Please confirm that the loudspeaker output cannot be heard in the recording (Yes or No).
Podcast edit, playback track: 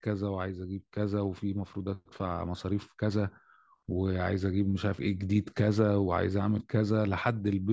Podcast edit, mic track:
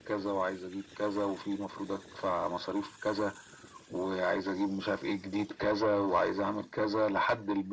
No